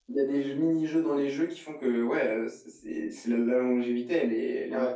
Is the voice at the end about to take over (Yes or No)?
Yes